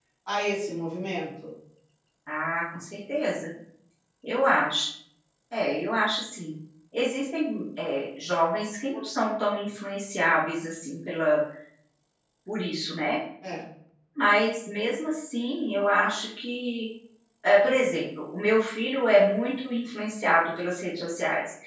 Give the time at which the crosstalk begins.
none

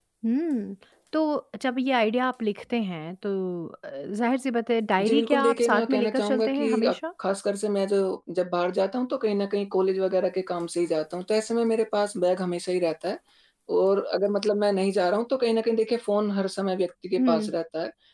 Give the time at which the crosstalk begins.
5.0 s

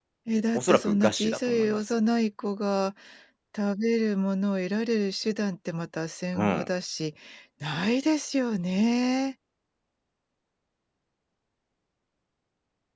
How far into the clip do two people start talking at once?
0.6 s

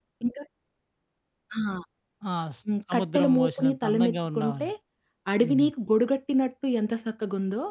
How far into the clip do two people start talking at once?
2.9 s

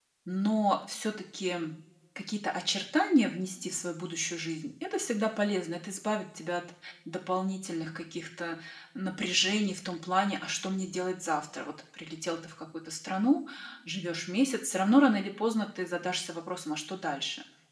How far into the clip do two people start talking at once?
none

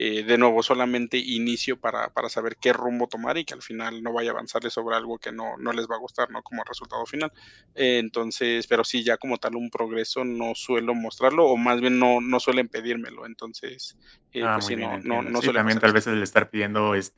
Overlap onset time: 14.4 s

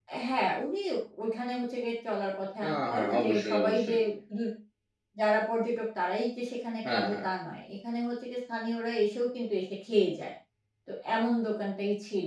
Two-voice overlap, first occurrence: 2.7 s

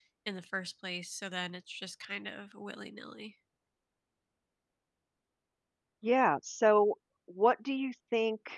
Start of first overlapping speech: none

